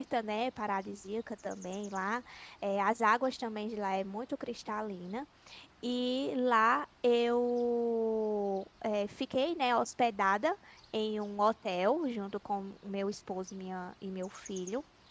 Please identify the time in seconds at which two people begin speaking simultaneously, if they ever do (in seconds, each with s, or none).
none